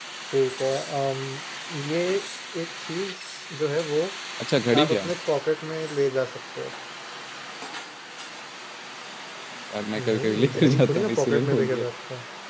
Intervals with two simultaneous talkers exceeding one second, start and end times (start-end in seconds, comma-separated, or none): 9.9-11.8